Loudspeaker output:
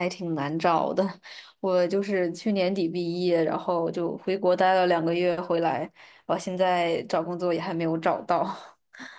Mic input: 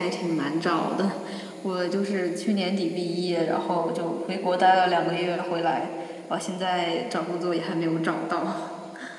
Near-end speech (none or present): none